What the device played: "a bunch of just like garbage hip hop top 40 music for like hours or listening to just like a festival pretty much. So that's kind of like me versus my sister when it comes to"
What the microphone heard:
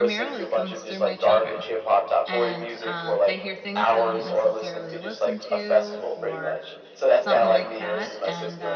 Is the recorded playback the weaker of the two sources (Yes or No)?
No